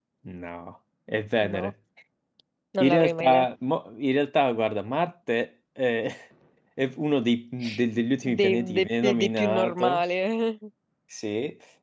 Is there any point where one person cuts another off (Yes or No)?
Yes